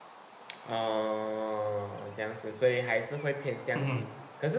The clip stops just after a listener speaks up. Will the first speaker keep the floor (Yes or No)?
Yes